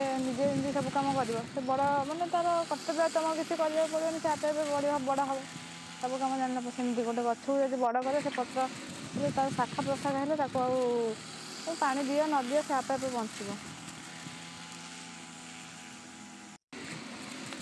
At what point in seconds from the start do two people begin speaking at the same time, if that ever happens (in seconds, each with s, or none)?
none